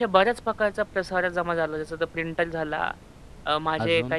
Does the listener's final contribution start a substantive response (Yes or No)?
No